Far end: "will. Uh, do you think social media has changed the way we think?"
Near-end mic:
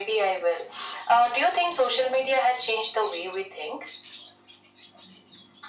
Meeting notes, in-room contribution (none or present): none